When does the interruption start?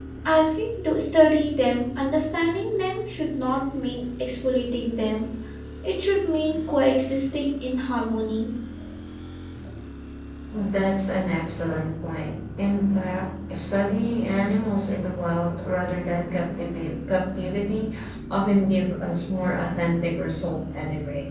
none

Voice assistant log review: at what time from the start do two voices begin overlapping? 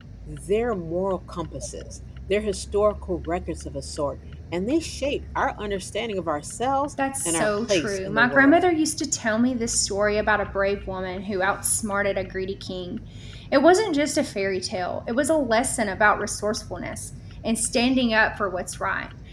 7 s

